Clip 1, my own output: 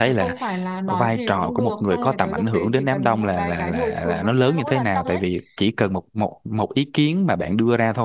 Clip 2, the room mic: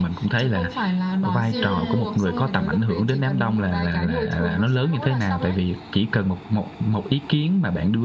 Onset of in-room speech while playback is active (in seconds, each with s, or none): 1.5 s